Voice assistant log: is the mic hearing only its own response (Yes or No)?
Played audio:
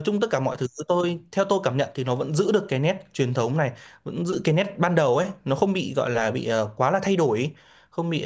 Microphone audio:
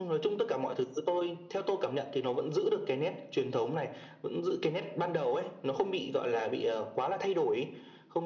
Yes